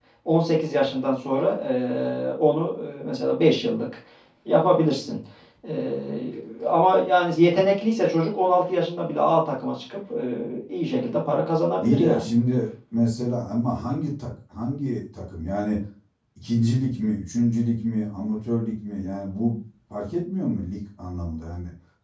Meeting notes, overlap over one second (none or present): none